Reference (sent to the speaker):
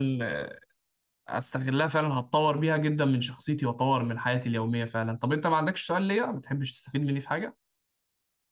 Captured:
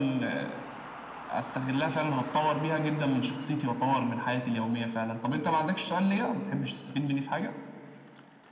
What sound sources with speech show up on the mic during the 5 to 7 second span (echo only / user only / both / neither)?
echo only